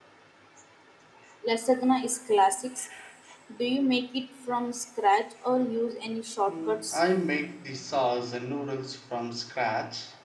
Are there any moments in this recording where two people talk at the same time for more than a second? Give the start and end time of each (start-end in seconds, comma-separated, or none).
none